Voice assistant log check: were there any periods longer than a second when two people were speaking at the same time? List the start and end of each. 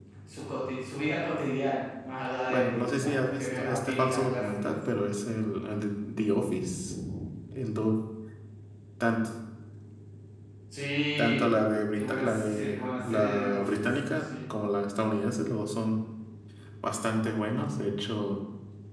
2.5-4.7, 11.9-14.2

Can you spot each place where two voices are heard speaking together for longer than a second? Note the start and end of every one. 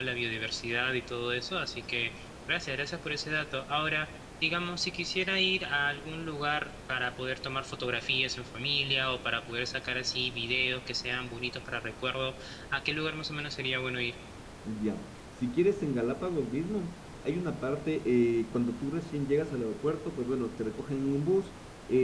none

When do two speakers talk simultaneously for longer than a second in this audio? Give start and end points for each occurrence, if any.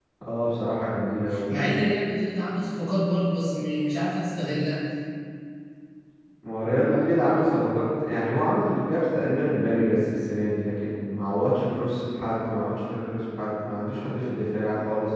none

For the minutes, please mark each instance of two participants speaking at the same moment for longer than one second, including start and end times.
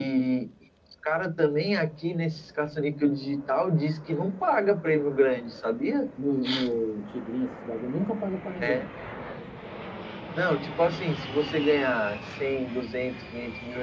none

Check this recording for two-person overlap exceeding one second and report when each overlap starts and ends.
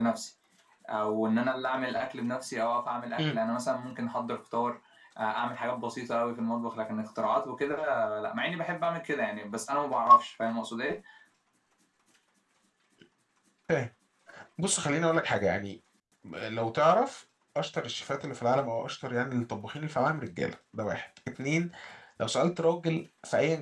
none

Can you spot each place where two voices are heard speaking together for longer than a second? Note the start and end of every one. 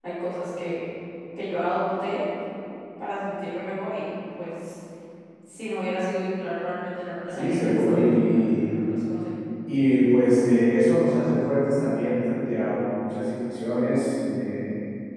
7.3-8.7

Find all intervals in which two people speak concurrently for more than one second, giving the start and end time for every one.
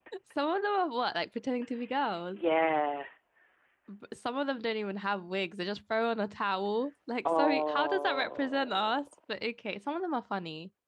7.2-9.0

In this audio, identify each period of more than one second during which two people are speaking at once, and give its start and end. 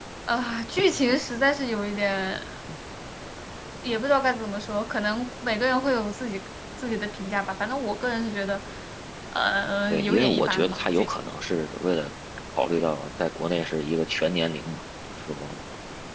9.9-11.3

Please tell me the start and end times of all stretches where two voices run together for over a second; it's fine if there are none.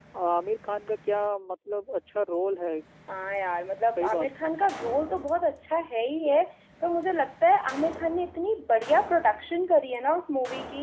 none

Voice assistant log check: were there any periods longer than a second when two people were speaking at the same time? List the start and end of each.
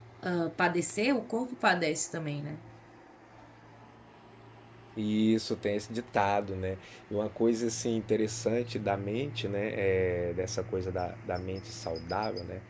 none

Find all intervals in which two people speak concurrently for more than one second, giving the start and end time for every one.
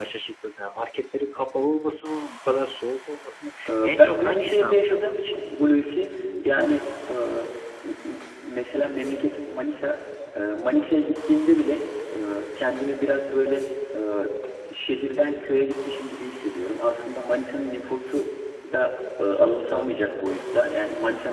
3.7-5.2

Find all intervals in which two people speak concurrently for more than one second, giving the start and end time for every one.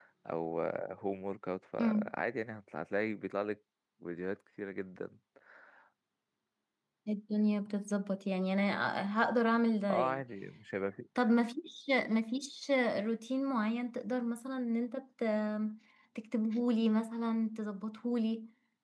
none

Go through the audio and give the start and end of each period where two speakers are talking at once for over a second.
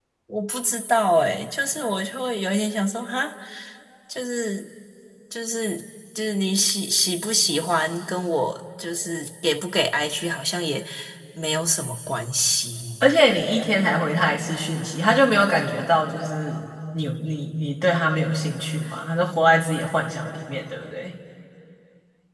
none

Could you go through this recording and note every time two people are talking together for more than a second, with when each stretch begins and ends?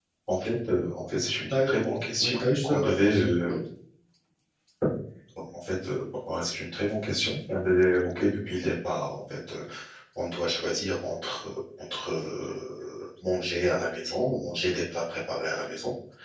2.2-3.5

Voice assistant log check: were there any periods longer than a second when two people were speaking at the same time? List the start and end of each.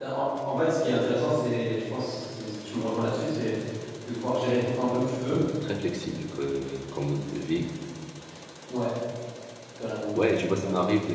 none

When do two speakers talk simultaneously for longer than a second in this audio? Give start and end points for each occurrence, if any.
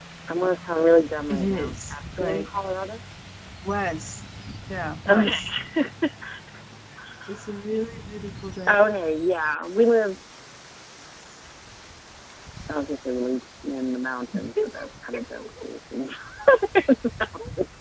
1.3-2.5

